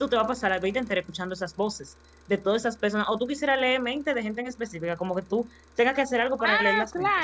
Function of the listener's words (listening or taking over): taking over